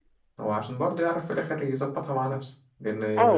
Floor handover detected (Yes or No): Yes